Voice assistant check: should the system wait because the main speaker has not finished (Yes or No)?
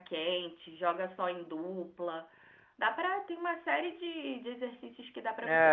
No